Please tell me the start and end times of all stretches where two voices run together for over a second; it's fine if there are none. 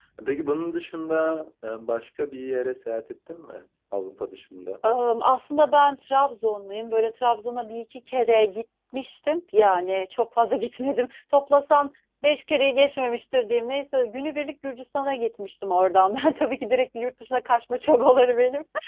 none

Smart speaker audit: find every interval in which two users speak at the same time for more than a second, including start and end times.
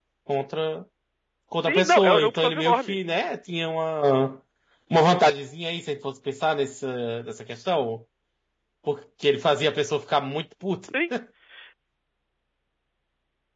1.7-3.0

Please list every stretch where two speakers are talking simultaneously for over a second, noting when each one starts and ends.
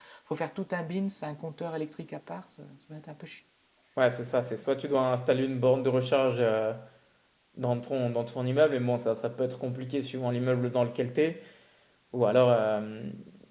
none

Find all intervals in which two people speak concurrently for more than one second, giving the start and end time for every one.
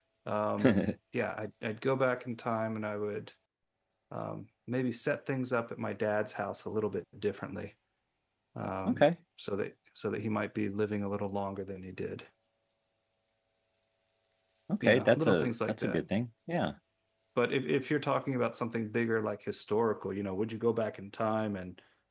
14.8-16.0

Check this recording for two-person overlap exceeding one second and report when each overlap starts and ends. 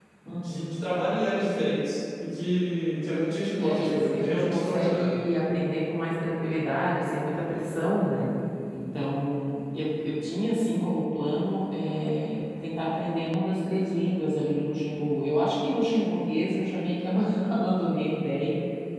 3.6-5.0

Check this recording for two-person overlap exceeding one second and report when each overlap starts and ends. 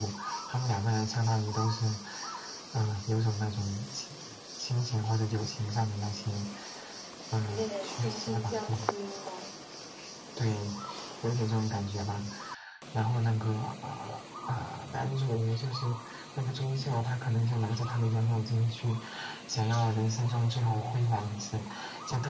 7.5-8.9

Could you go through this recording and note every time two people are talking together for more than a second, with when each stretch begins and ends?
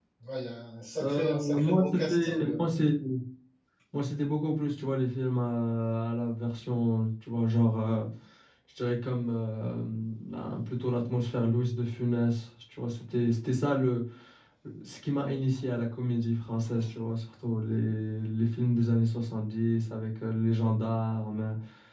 1.0-2.5

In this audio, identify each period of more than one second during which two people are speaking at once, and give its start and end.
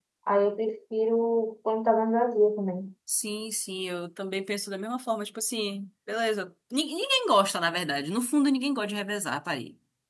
none

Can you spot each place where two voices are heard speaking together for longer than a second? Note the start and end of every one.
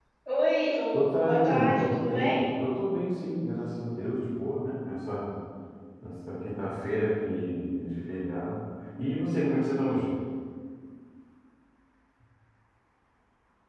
0.9-2.4

